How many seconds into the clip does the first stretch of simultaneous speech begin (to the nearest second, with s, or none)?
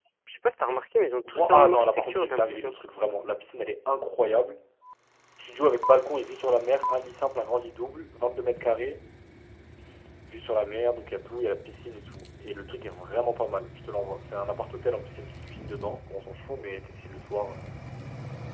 1 s